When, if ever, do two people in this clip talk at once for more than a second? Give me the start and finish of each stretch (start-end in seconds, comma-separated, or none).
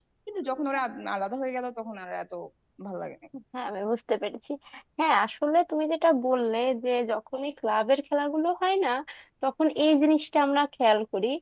none